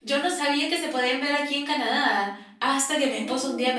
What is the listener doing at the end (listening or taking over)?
listening